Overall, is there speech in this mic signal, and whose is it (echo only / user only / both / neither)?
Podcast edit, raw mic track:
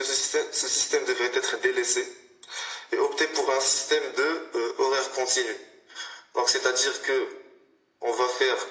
echo only